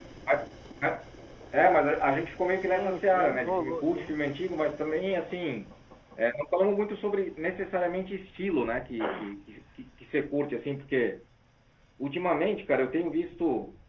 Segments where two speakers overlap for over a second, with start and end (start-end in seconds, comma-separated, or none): 2.6-4.2